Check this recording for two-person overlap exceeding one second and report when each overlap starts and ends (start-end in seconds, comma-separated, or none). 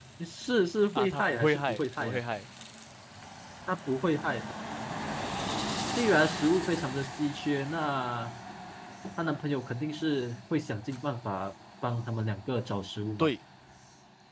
0.9-2.2